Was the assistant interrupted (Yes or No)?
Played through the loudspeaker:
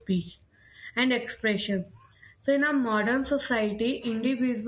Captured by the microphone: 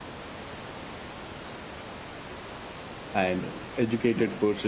Yes